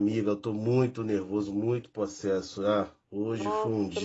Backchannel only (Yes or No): No